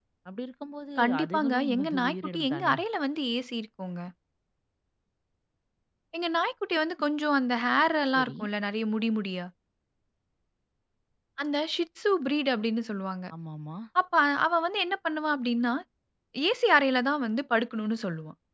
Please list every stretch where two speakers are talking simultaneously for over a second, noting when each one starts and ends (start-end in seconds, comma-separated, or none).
1.0-2.7